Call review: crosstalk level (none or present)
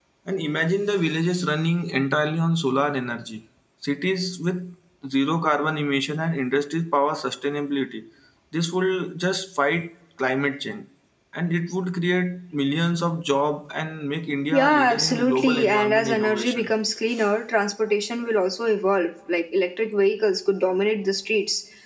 present